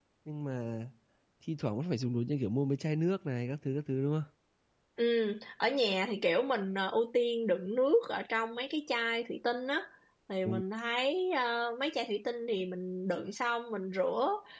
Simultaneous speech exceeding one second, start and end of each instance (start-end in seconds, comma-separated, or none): none